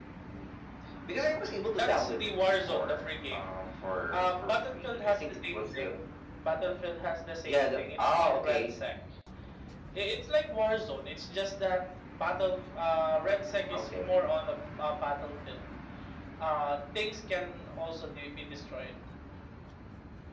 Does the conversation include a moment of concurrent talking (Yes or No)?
Yes